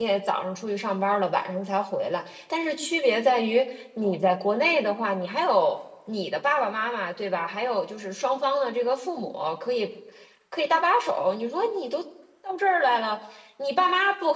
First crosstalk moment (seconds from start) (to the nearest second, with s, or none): none